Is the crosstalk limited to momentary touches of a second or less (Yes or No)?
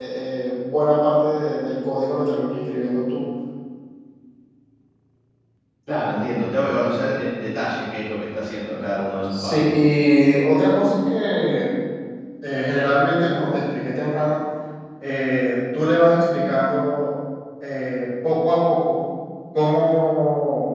Yes